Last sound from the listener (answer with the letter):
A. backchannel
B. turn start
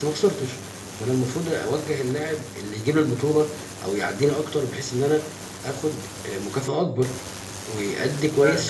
B